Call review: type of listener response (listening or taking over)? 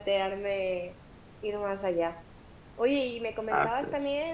listening